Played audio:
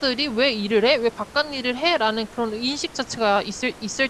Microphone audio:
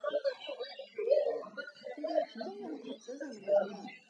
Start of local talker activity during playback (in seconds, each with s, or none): 1.2 s